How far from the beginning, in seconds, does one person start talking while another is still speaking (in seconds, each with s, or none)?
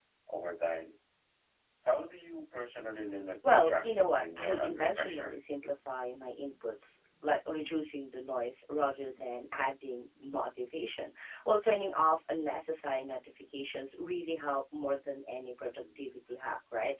3.5 s